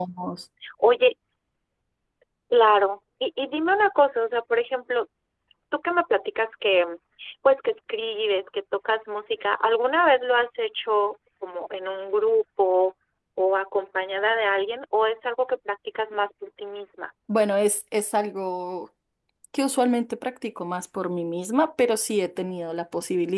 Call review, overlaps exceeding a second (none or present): none